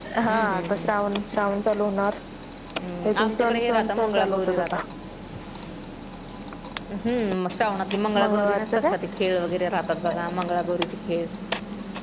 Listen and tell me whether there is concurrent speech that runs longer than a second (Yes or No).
Yes